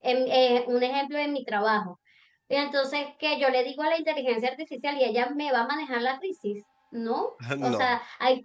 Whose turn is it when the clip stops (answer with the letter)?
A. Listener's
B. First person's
B